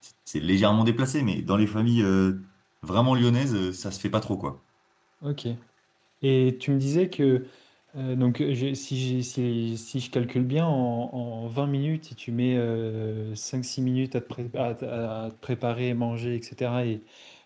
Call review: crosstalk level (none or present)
none